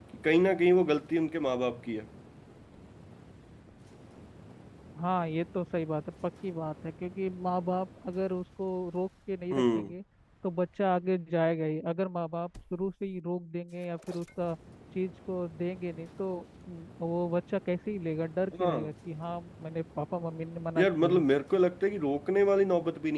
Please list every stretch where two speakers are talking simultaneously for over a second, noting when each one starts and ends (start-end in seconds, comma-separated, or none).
none